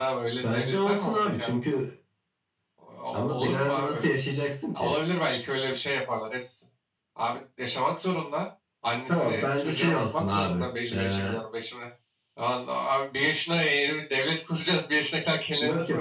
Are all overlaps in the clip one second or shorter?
No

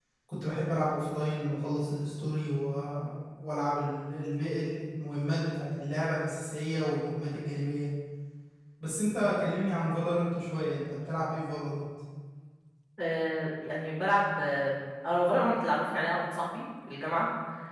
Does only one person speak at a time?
Yes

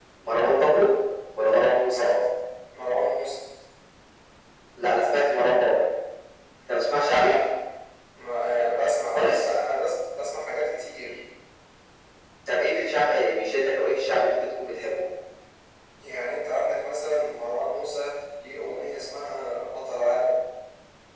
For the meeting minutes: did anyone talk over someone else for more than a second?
No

